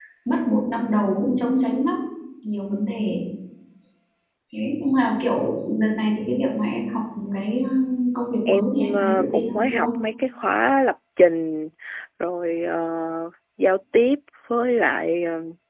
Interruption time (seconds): 8.5 s

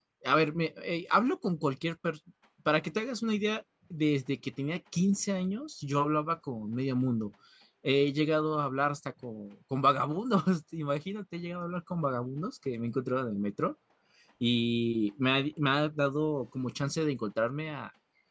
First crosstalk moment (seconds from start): none

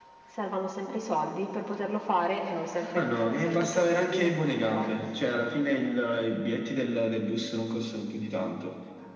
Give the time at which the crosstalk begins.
3.0 s

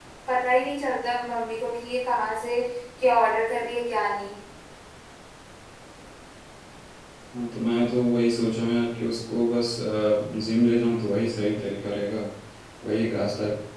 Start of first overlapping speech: none

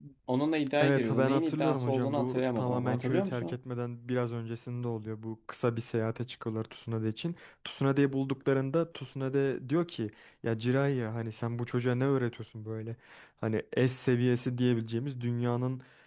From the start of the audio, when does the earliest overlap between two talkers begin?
0.8 s

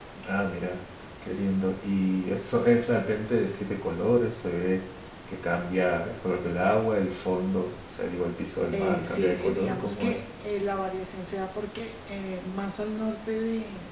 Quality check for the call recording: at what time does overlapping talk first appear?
8.6 s

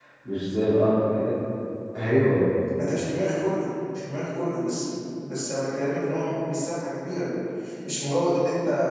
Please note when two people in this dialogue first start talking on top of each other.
none

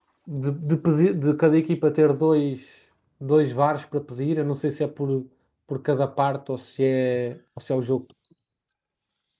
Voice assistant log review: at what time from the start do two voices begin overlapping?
none

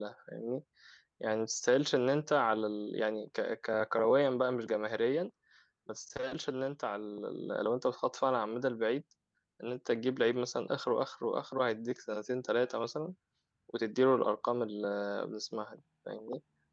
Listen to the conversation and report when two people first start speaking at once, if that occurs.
none

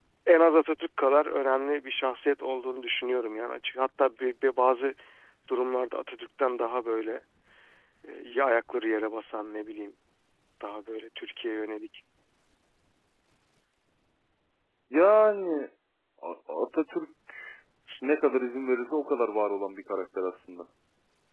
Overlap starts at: none

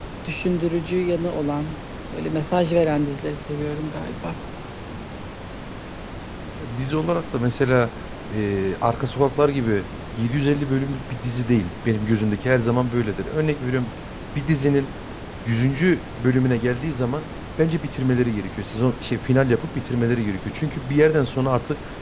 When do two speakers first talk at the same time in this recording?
none

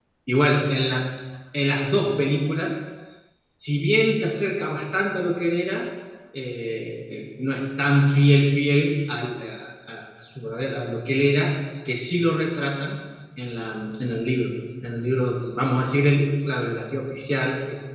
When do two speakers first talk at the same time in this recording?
none

